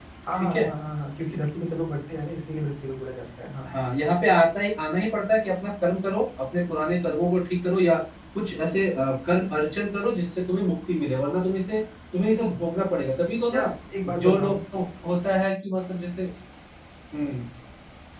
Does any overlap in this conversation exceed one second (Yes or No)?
No